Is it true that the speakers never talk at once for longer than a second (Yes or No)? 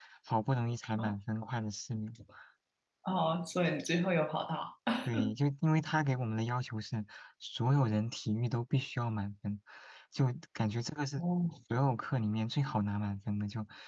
Yes